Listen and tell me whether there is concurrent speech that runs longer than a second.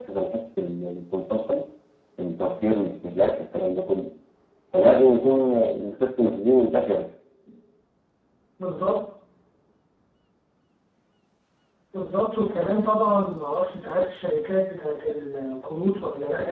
No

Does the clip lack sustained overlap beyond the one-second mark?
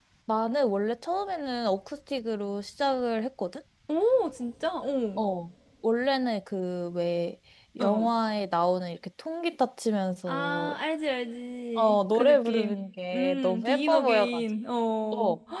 No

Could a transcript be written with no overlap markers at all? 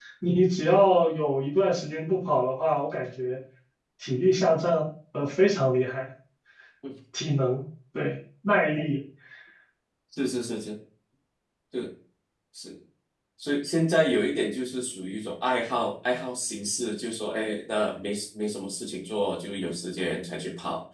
Yes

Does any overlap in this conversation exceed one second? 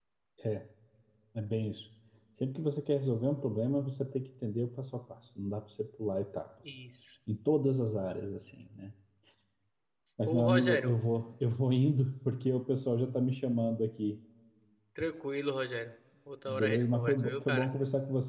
Yes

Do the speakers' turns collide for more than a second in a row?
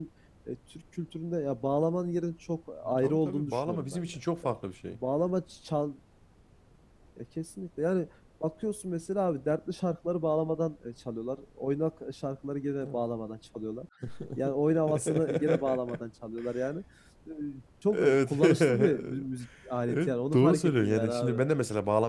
Yes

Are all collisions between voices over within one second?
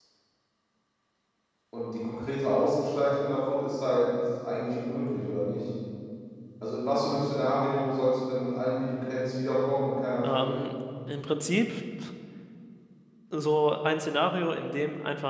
Yes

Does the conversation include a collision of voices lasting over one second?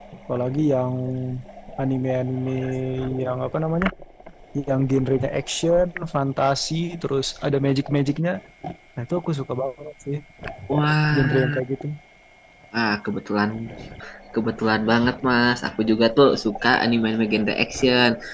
No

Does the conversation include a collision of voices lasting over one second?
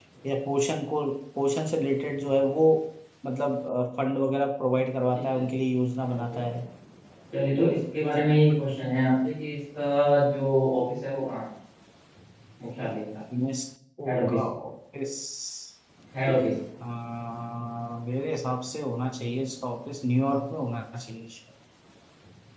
No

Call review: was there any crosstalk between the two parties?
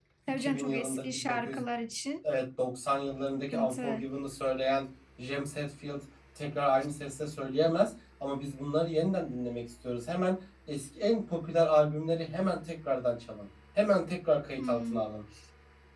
Yes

